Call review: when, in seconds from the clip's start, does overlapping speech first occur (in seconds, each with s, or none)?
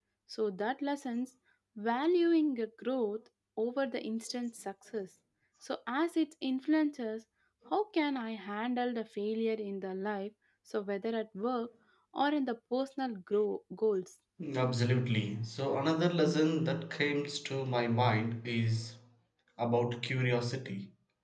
none